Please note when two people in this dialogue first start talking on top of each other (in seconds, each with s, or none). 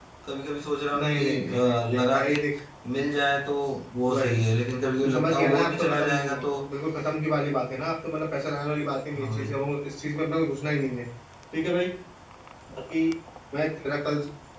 1.0 s